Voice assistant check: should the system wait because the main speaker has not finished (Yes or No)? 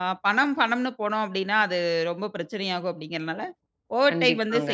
Yes